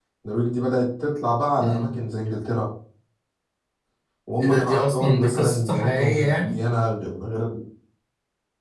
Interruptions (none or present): present